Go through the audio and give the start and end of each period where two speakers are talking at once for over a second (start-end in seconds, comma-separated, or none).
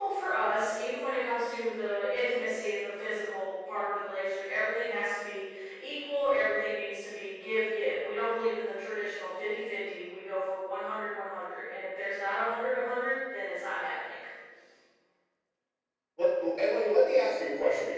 none